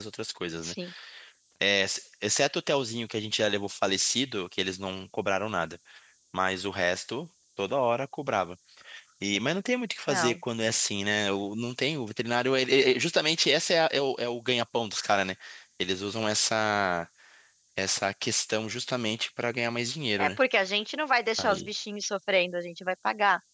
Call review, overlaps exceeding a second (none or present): none